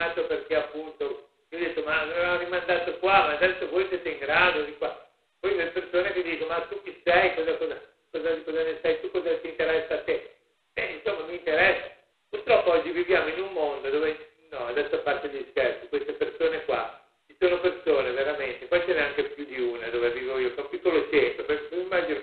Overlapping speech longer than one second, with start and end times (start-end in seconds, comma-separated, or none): none